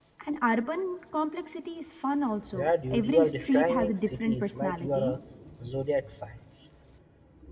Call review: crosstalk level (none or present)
present